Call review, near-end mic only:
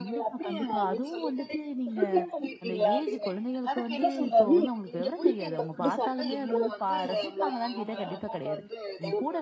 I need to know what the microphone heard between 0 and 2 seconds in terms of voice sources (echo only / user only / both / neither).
both